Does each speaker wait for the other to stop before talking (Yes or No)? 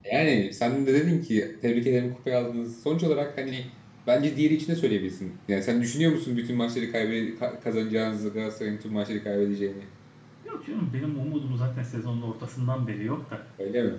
Yes